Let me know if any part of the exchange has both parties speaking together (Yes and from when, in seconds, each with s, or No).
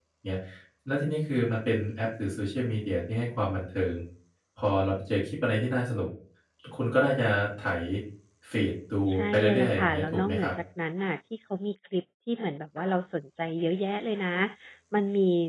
Yes, from 9.1 s